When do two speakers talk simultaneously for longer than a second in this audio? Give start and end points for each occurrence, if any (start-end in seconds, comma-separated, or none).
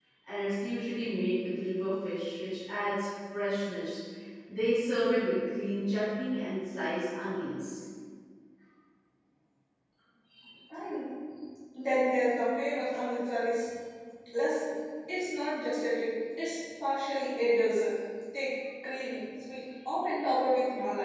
none